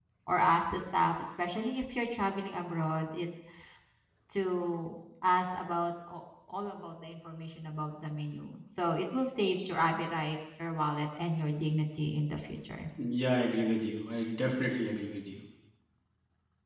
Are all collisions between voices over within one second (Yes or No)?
Yes